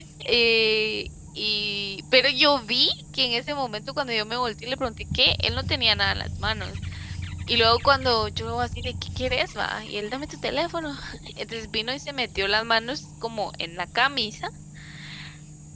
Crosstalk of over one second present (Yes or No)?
No